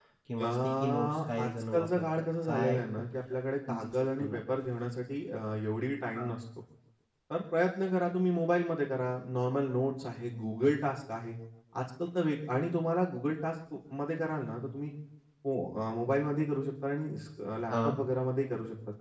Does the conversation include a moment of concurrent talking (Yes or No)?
Yes